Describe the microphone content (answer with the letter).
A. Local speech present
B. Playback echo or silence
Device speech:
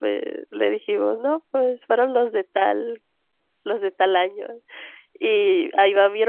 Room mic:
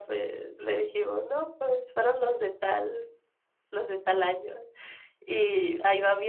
B